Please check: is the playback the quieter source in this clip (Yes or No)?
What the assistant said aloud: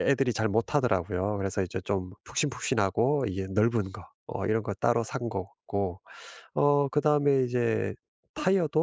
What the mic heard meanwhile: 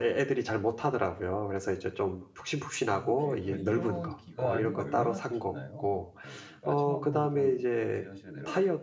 No